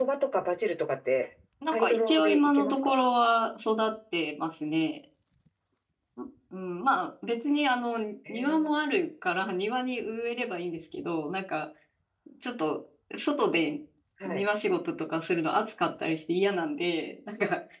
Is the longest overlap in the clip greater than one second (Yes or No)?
Yes